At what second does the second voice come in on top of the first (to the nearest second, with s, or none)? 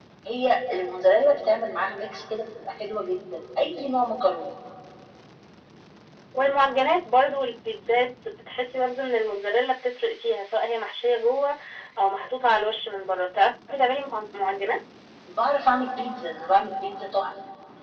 none